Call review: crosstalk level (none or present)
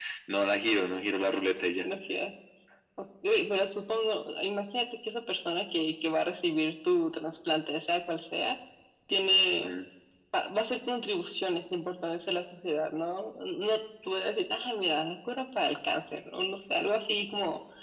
none